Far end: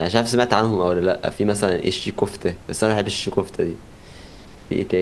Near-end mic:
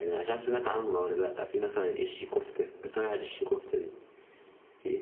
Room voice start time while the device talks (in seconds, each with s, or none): none